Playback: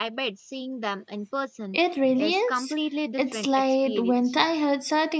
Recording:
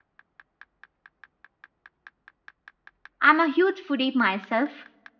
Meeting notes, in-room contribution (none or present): present